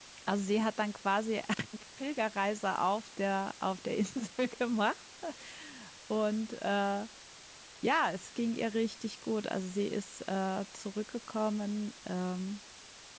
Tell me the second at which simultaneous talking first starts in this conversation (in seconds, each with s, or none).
none